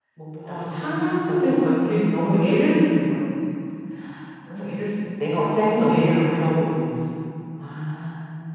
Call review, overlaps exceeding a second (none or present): present